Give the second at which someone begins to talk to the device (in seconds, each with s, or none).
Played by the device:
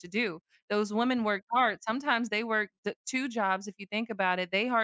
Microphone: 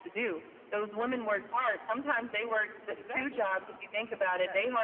2.9 s